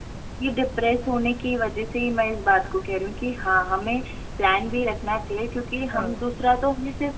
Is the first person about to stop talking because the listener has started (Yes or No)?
No